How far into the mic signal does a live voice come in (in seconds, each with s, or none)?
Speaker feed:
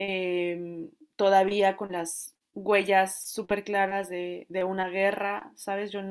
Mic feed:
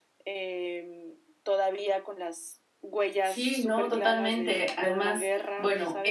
3.2 s